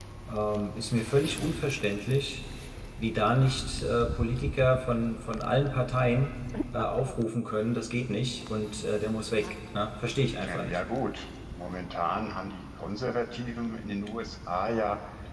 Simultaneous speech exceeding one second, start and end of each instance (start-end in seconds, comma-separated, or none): none